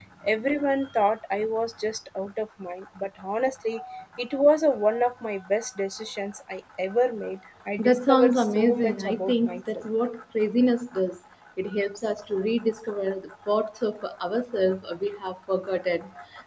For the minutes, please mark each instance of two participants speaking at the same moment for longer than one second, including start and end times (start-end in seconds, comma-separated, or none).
7.8-9.8